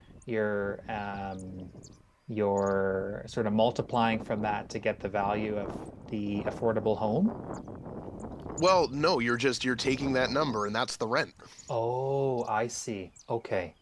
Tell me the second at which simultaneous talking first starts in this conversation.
none

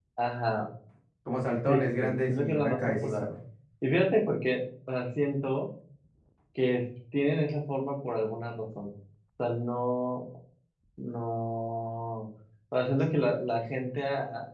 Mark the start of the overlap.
1.7 s

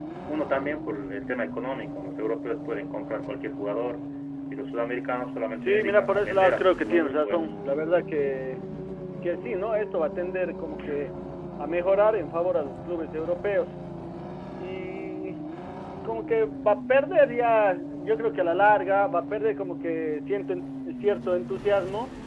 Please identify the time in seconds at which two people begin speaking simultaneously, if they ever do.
5.6 s

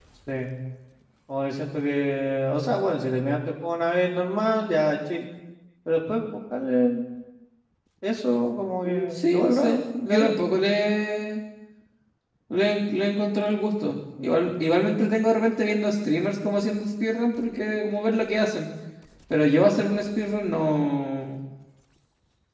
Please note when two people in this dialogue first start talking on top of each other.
9.1 s

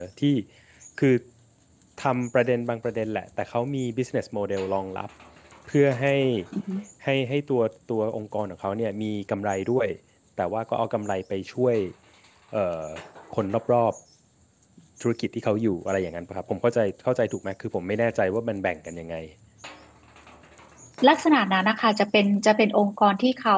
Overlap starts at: none

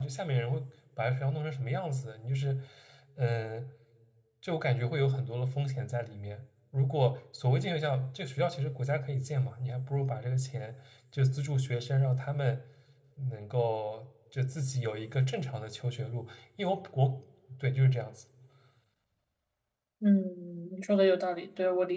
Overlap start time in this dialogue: none

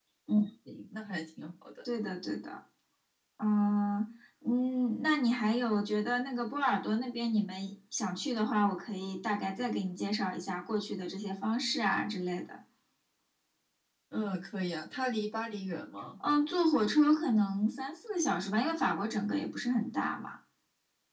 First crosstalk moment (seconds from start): none

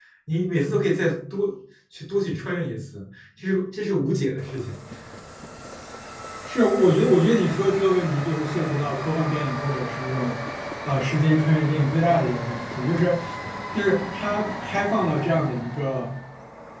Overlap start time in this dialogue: none

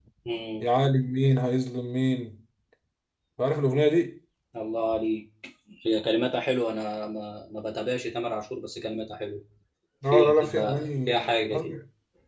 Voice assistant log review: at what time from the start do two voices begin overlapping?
10.1 s

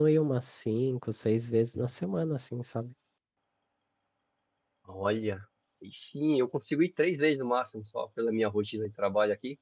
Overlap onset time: none

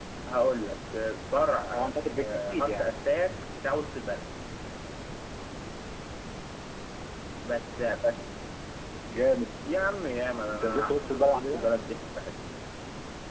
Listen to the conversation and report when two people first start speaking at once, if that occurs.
1.7 s

